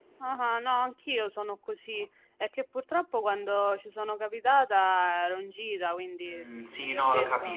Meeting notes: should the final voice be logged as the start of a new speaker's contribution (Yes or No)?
Yes